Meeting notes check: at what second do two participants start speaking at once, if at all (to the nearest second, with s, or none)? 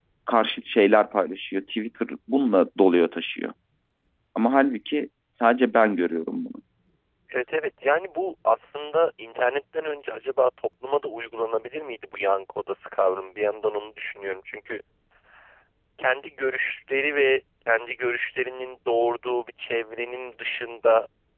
none